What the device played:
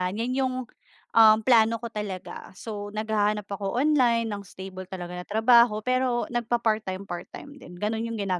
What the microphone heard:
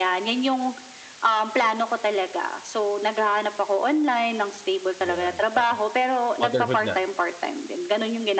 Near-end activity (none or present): present